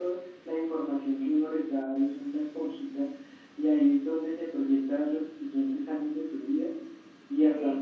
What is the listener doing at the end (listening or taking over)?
listening